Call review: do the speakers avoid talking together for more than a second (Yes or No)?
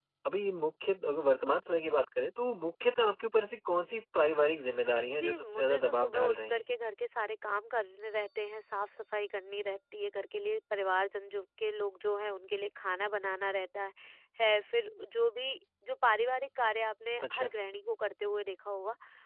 No